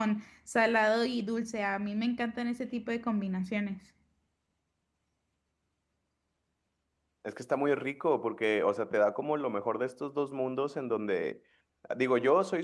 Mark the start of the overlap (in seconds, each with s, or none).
none